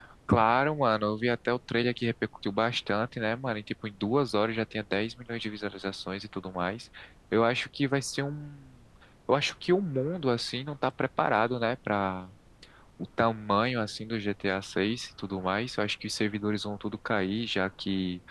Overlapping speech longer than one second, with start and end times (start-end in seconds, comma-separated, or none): none